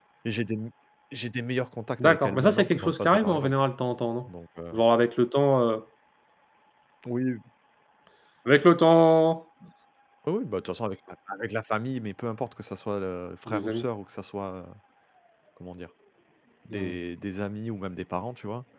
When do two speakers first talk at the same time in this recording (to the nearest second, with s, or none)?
2 s